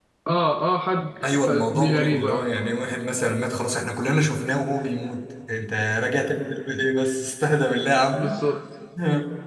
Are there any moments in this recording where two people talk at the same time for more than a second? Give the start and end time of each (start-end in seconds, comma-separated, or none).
1.3-2.5